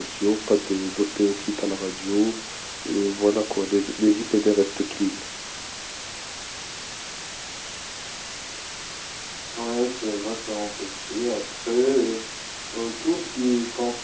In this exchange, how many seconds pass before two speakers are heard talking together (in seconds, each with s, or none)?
none